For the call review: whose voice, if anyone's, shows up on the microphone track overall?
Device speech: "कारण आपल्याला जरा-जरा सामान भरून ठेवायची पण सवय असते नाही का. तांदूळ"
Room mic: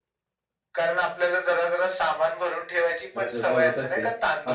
both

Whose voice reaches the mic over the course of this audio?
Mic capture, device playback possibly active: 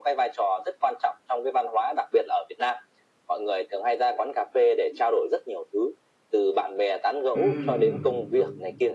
both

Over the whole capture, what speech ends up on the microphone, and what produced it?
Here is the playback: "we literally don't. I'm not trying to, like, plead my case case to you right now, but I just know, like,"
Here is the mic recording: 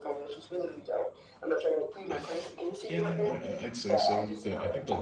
both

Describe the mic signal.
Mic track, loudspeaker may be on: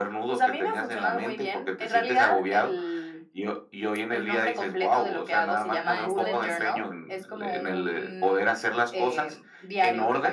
both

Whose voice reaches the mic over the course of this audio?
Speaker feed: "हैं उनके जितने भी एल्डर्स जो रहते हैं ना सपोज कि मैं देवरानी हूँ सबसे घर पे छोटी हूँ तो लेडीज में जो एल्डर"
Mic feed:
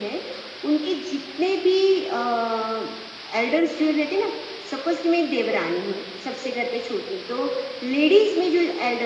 echo only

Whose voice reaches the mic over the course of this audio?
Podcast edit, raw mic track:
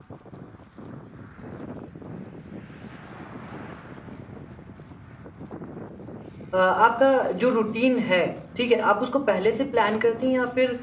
user only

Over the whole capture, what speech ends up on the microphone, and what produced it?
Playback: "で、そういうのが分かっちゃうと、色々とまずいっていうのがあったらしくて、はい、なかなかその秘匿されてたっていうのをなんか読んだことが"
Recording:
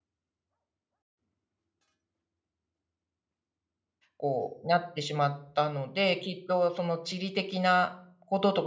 user only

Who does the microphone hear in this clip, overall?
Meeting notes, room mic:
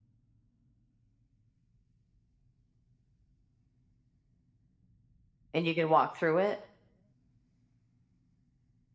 user only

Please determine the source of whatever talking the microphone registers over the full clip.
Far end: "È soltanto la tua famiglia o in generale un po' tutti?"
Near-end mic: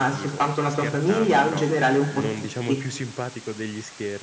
both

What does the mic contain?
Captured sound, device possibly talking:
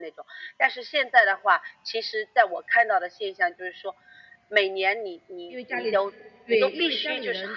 both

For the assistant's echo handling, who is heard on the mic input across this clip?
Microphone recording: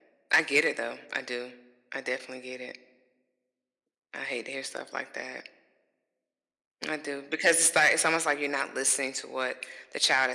echo only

